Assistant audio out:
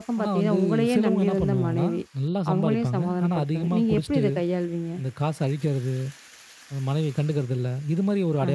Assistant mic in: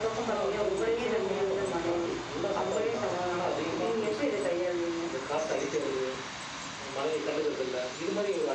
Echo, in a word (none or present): present